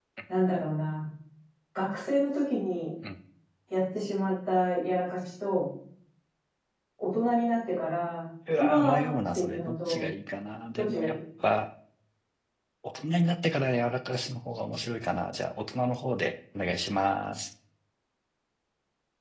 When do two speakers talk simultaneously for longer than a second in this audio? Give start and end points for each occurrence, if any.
8.6-10.1

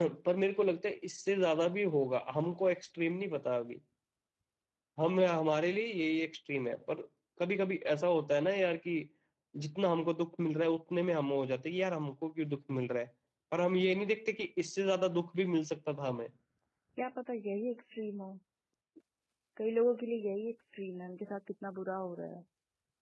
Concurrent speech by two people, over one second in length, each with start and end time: none

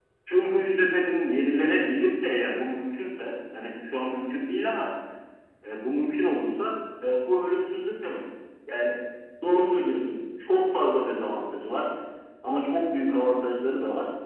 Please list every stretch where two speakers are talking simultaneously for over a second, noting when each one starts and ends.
none

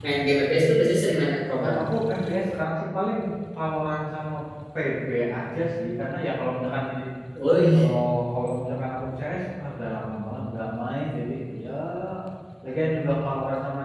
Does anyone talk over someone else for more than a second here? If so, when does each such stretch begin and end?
none

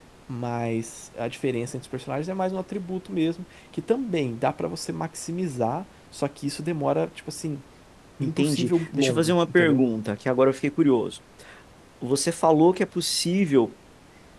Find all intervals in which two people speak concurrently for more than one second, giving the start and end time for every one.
8.2-9.8

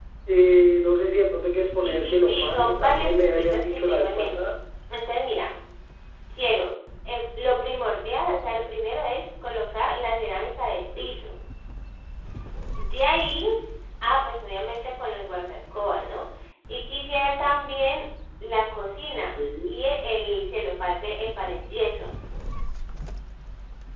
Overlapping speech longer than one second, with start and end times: 1.8-4.5

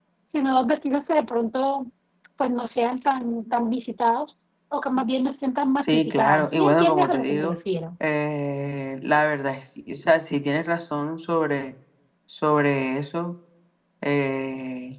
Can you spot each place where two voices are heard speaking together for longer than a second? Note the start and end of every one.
5.8-7.5

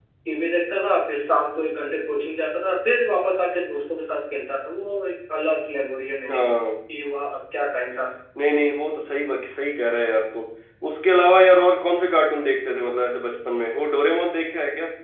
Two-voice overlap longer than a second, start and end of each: none

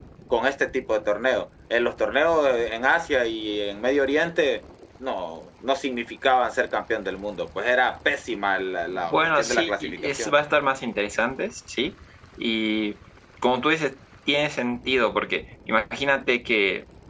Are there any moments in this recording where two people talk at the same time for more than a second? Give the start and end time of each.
8.9-10.3

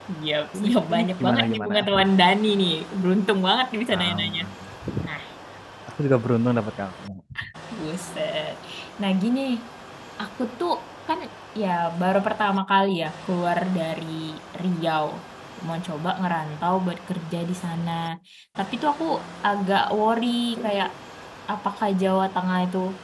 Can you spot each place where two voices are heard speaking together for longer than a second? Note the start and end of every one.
0.6-1.9

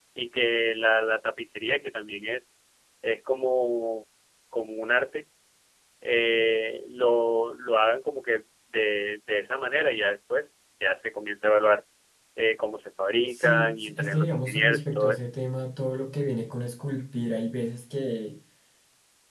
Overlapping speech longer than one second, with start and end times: 13.3-15.2

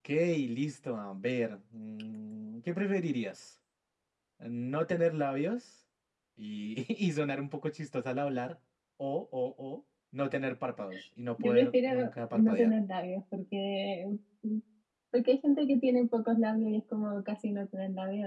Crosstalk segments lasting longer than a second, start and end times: 11.4-12.7

